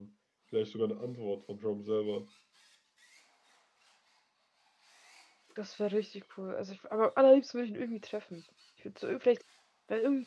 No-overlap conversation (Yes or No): Yes